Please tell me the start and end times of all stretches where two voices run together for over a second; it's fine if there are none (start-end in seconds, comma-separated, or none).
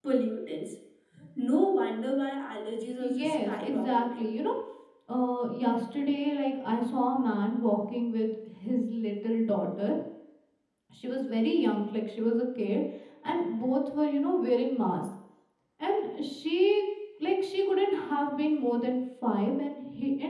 3.0-4.3